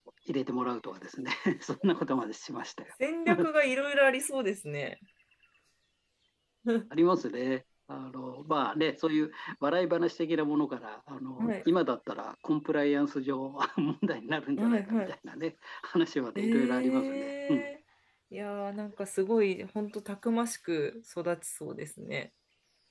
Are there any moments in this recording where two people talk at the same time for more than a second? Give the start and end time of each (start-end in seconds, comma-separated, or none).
16.4-17.7